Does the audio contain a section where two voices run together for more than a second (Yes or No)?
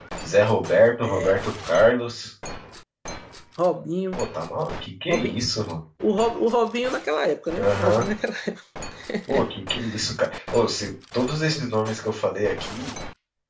No